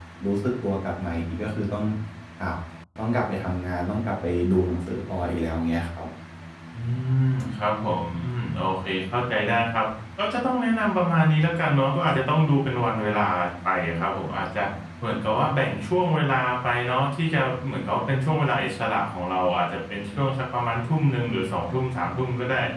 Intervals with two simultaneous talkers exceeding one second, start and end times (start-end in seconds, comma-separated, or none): none